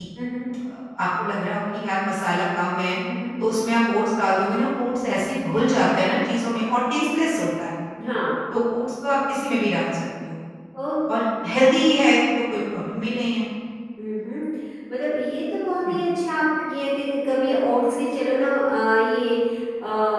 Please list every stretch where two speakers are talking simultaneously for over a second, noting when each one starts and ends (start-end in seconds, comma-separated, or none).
none